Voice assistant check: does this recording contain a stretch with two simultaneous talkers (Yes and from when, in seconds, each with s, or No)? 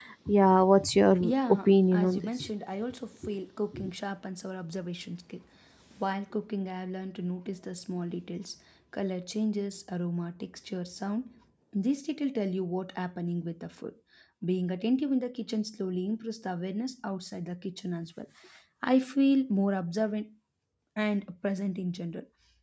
Yes, from 1.2 s